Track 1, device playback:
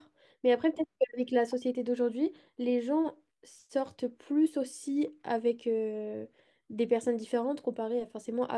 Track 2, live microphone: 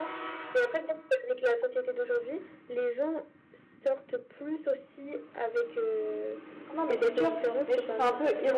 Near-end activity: present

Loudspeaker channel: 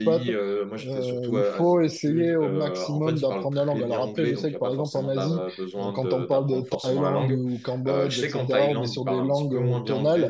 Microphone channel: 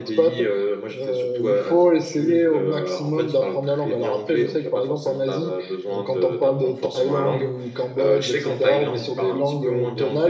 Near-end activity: none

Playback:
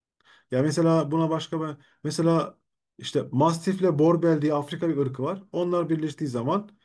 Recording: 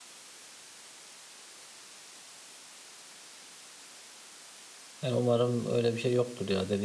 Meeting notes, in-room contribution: present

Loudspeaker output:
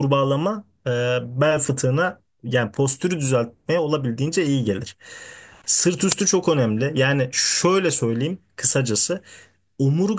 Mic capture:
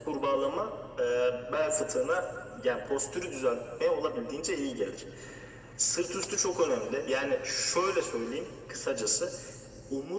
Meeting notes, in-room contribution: none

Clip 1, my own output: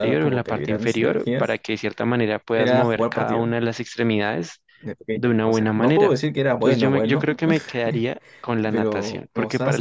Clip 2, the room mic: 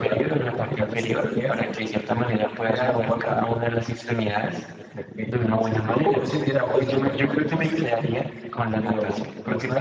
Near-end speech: none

